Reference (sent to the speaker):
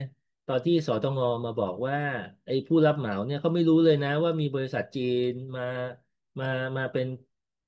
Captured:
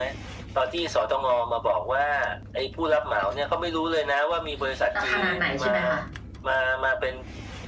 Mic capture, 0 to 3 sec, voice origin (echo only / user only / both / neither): echo only